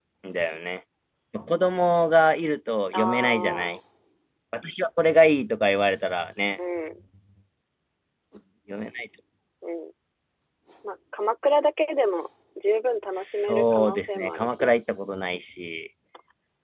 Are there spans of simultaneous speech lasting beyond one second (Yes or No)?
Yes